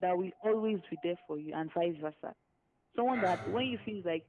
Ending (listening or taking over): listening